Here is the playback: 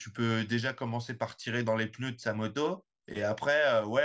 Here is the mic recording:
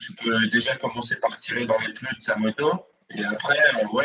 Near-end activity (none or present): none